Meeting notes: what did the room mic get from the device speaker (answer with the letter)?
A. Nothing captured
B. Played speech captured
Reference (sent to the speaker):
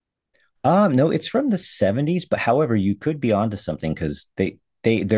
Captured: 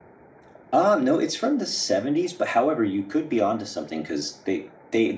B